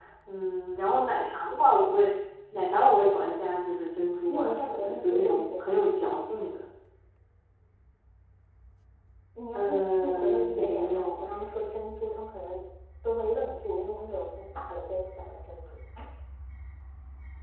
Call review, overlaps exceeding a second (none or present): present